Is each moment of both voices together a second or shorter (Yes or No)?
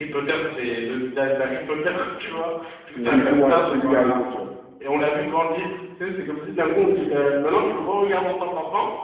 No